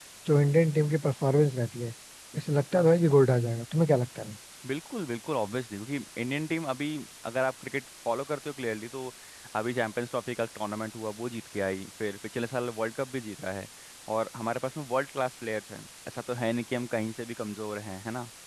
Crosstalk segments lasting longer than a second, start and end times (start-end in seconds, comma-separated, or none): none